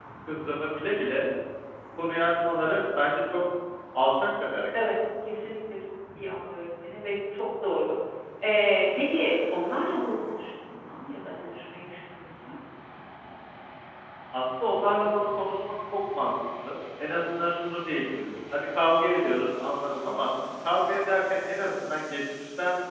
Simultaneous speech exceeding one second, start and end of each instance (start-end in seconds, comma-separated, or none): none